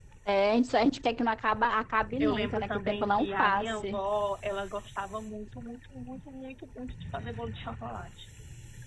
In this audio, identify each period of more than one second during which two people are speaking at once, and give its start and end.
2.2-4.0

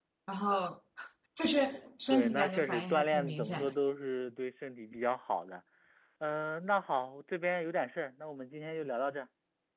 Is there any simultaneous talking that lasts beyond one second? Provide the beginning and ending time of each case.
2.1-3.7

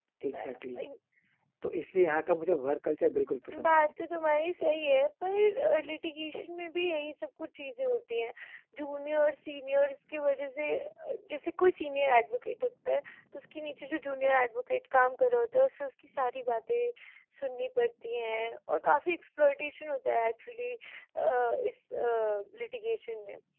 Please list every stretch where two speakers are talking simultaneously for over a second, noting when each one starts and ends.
none

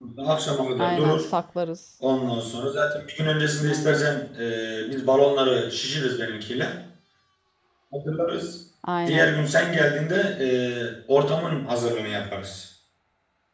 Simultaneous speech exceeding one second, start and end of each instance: none

